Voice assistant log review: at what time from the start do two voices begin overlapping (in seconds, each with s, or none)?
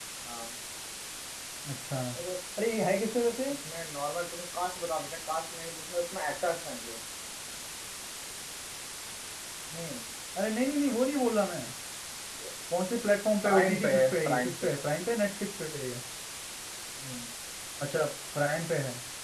13.4 s